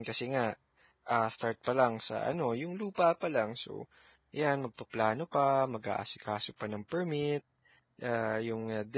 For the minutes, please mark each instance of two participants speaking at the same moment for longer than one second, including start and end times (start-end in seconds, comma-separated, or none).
none